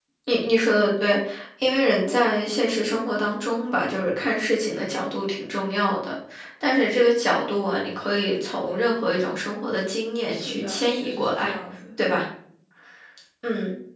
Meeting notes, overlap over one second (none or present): present